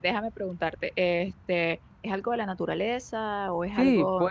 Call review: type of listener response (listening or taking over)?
taking over